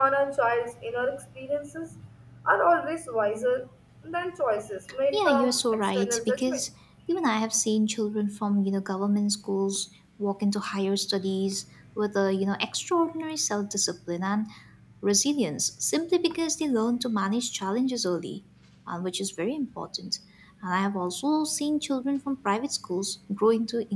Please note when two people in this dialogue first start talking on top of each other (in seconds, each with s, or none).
5.1 s